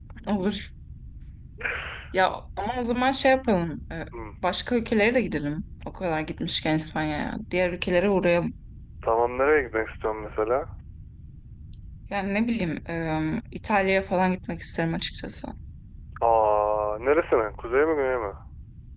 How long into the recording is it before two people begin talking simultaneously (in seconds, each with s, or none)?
none